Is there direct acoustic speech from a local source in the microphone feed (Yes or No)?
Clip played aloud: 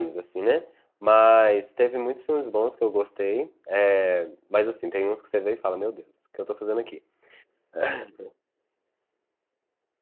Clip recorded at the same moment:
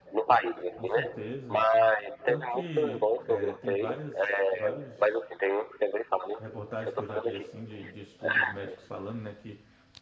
Yes